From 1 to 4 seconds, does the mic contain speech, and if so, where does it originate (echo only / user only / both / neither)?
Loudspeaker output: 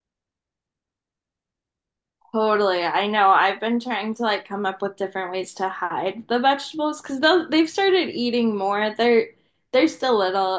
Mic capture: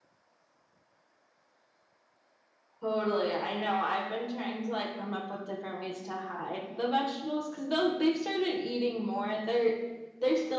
echo only